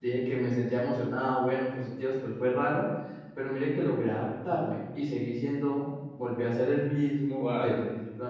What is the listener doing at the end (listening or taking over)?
listening